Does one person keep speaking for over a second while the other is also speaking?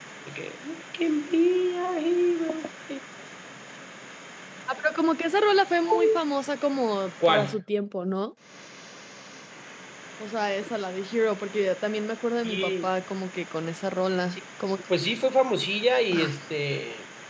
No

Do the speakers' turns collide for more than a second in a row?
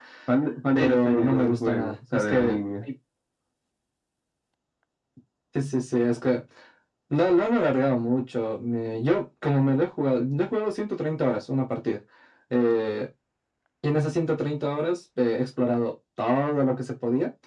Yes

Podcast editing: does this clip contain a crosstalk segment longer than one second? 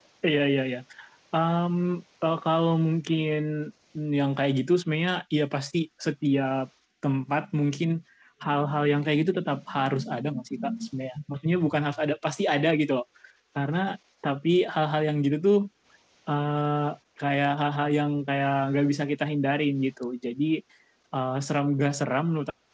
No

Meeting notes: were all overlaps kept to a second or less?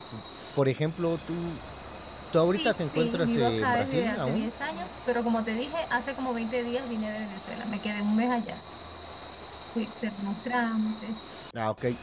No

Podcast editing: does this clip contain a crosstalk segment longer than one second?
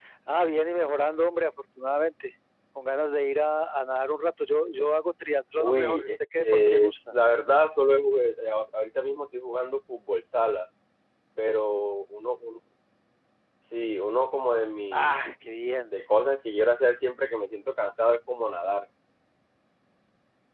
Yes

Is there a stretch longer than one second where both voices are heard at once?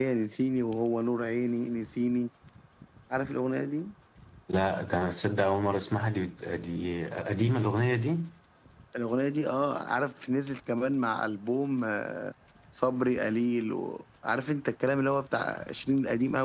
No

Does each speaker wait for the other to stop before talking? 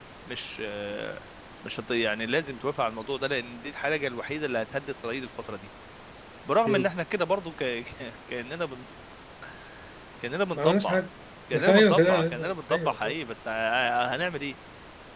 No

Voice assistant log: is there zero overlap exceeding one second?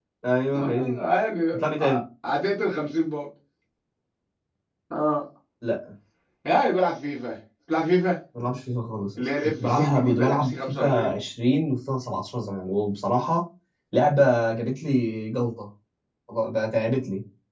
No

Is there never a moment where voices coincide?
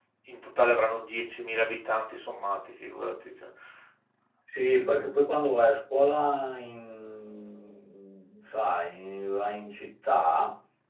Yes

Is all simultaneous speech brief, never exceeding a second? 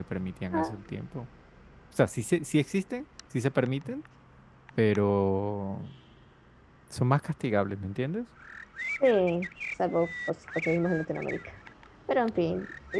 Yes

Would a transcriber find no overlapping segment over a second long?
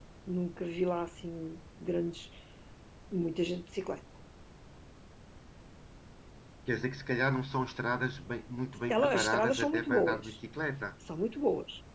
No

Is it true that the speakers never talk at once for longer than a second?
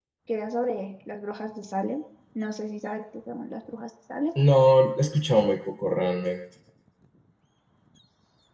Yes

